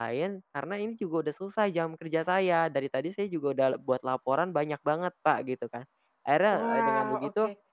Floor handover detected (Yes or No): No